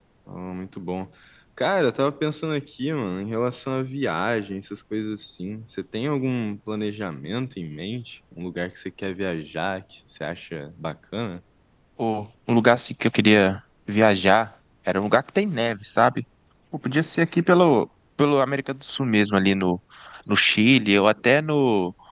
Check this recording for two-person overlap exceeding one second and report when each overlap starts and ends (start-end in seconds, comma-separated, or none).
none